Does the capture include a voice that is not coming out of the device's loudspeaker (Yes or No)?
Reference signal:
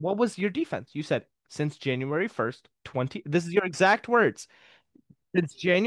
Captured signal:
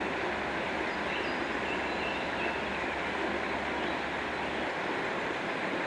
No